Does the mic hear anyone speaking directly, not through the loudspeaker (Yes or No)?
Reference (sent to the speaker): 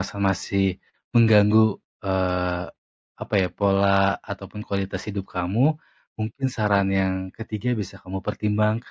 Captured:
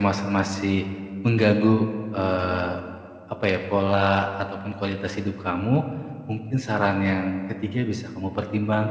No